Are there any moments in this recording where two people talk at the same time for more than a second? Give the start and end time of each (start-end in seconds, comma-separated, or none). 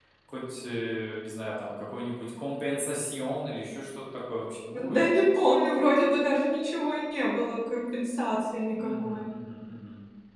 none